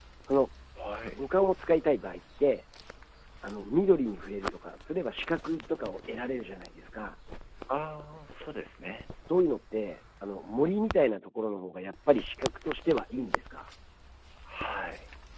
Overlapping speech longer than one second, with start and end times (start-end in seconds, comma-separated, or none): none